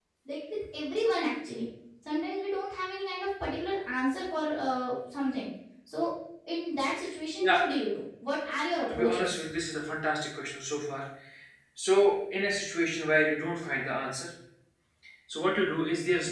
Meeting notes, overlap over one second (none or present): none